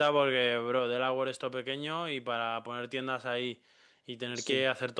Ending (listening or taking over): listening